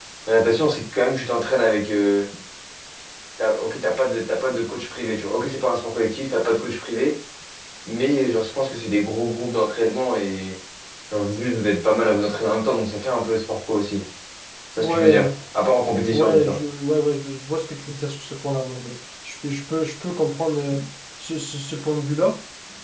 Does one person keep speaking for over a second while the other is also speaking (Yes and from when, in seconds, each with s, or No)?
No